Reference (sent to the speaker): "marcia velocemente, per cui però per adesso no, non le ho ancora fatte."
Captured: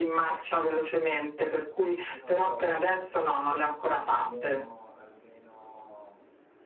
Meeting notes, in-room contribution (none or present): present